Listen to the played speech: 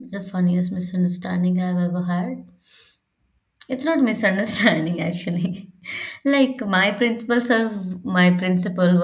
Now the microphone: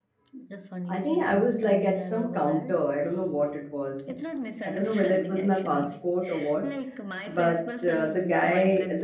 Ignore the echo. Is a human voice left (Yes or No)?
Yes